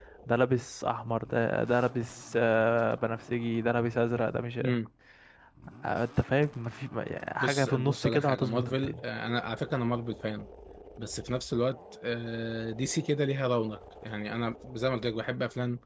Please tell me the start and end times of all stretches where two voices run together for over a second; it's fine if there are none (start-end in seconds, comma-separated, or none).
7.4-9.0